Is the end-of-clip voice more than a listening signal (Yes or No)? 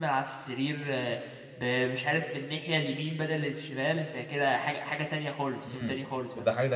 Yes